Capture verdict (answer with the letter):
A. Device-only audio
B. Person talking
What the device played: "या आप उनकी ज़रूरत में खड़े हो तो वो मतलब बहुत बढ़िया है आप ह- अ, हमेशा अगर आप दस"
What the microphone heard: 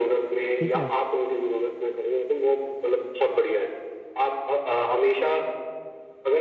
B